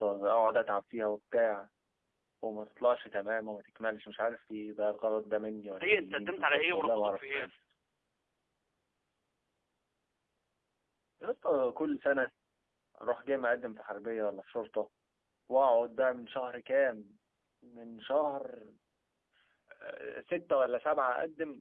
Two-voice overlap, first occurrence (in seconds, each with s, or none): 5.7 s